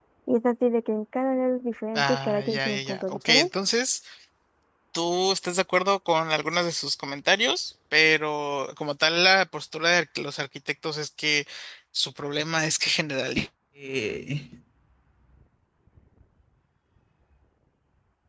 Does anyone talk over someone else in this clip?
Yes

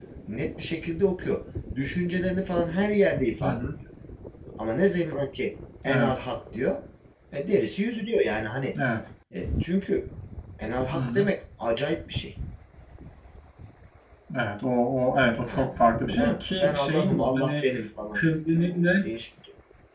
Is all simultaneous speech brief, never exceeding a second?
No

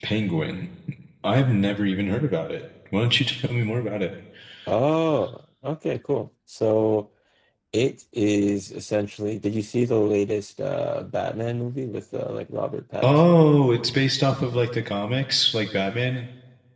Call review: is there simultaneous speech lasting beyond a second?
No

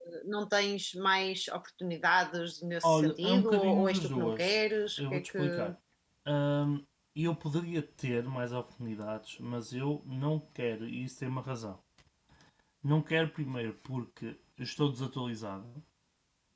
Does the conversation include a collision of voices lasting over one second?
Yes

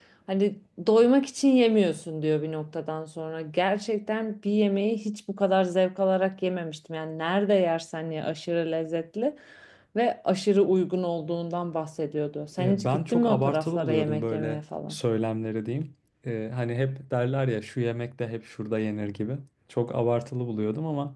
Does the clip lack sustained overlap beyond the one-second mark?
No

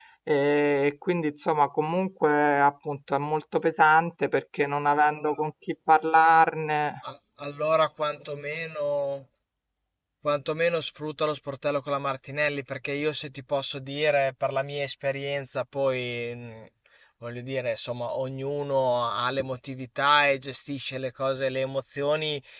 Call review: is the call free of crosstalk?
Yes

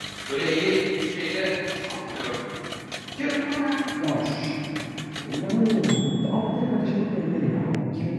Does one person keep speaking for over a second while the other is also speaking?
No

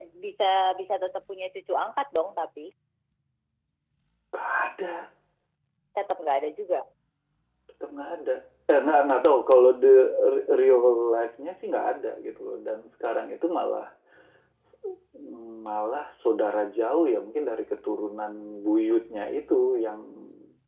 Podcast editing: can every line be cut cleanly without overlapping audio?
Yes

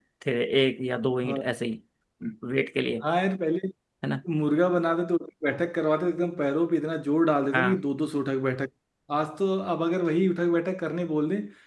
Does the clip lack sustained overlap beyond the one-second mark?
Yes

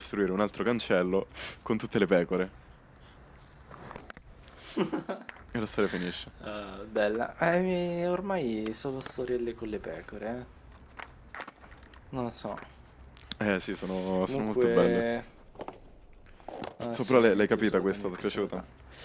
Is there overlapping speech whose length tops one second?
Yes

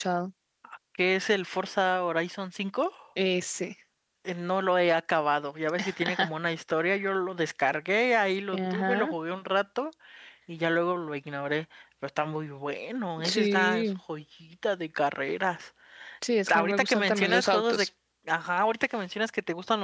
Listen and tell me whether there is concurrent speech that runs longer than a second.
Yes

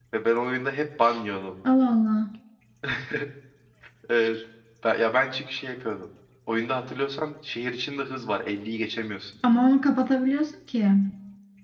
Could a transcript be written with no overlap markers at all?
Yes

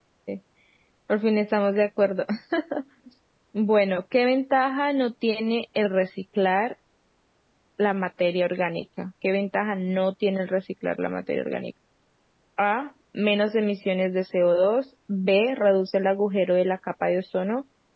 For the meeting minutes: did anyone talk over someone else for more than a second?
No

